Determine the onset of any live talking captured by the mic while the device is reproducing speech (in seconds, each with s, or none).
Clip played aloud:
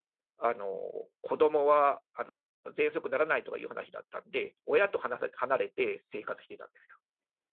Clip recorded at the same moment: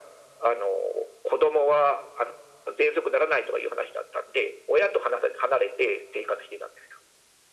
none